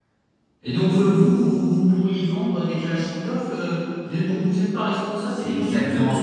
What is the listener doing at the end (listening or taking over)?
taking over